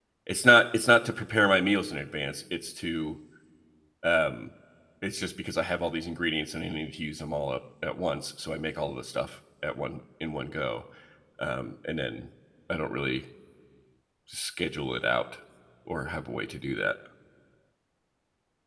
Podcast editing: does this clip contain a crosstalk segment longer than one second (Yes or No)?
No